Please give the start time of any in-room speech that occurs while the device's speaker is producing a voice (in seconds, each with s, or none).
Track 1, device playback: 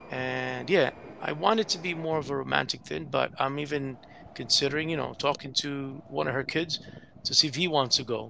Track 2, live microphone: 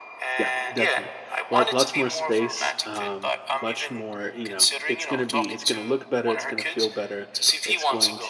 0.3 s